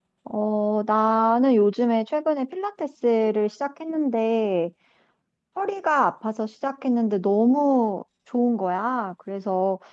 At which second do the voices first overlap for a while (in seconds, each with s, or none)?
none